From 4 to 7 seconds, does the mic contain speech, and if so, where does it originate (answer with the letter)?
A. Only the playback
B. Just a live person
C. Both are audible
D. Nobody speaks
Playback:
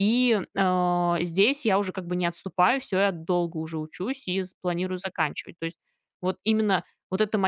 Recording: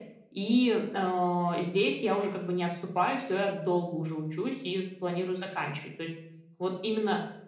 A